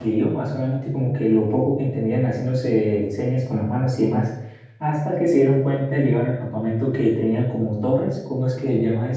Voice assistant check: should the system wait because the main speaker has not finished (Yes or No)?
Yes